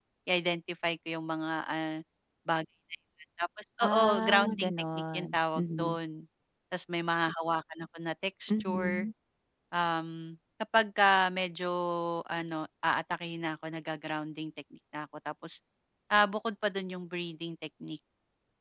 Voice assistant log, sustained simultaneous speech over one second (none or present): present